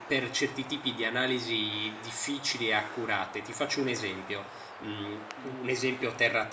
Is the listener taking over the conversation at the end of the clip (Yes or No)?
No